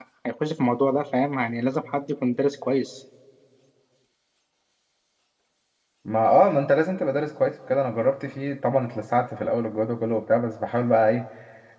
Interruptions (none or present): none